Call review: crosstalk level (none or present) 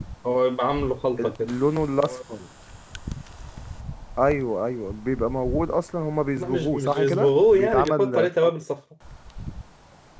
present